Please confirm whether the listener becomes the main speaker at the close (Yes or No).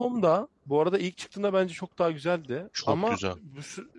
No